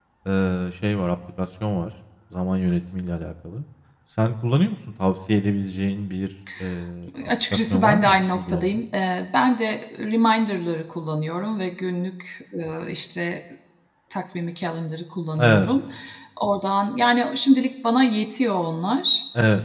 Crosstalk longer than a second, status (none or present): present